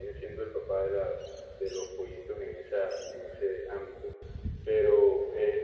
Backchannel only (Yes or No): Yes